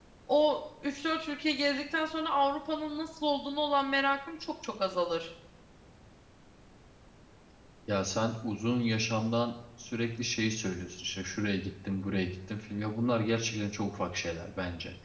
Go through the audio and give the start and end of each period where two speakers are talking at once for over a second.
none

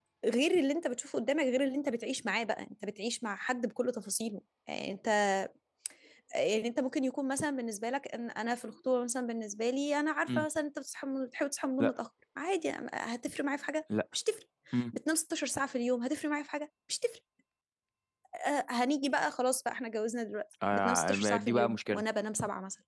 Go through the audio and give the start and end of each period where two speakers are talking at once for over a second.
20.7-22.0

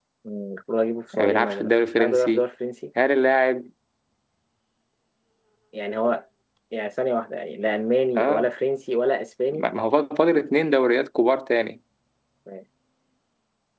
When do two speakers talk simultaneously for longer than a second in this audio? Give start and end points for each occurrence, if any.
1.1-2.4

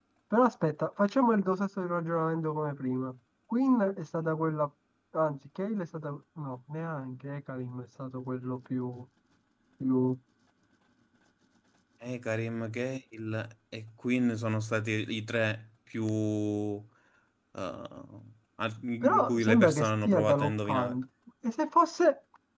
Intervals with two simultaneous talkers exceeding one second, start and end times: 19.0-20.9

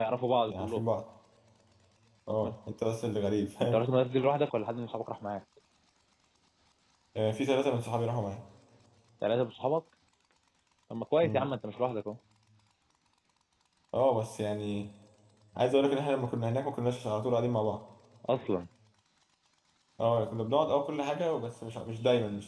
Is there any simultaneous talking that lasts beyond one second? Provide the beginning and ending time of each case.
none

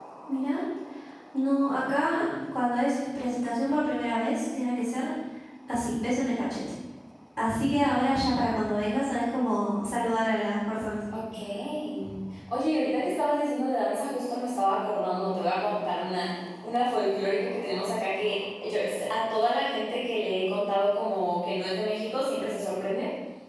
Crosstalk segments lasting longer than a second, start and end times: none

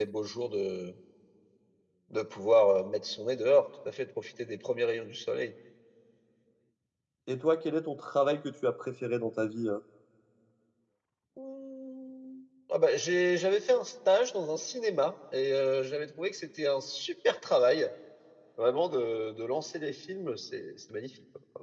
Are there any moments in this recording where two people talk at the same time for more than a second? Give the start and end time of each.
none

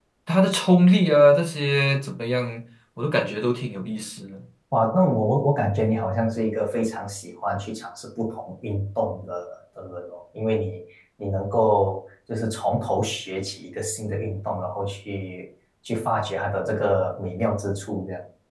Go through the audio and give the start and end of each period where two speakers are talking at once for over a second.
none

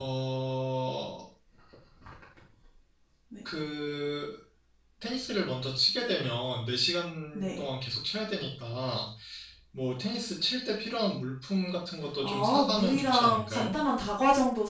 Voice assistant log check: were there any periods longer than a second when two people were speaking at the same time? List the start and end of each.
12.2-13.8

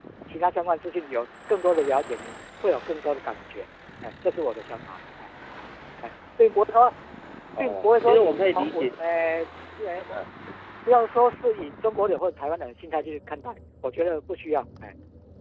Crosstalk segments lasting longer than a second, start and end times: 7.6-8.9

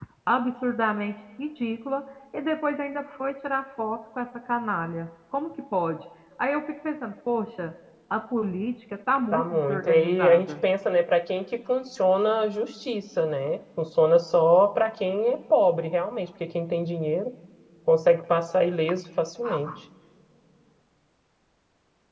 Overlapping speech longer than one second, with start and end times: 9.3-10.5

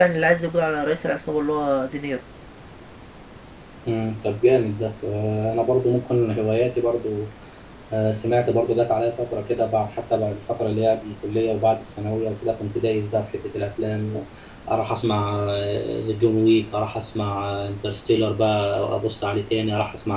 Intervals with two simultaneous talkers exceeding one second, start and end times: none

